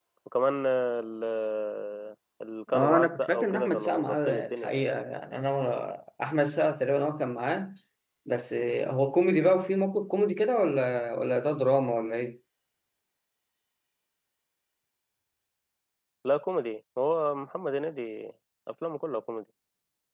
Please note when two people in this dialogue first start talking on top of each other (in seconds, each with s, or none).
2.7 s